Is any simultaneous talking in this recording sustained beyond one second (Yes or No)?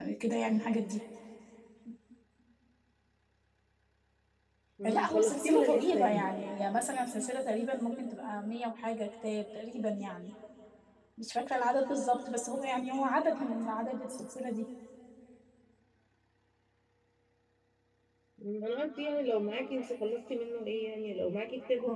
Yes